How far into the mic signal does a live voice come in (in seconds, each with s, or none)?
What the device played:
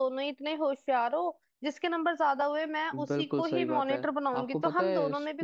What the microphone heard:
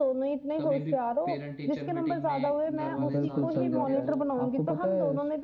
0.6 s